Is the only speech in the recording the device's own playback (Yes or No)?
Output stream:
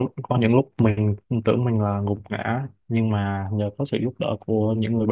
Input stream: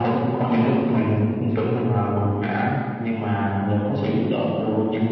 Yes